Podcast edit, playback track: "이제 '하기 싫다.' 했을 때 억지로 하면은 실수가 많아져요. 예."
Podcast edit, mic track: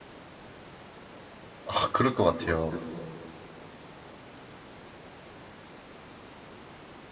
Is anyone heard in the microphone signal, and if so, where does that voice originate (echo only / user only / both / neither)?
user only